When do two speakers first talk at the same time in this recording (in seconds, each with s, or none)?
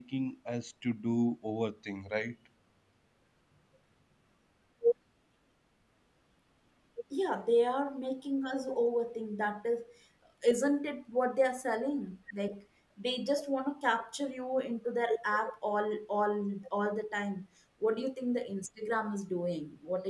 none